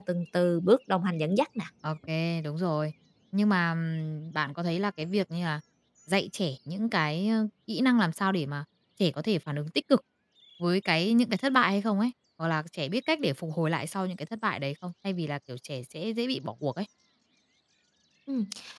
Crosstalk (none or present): none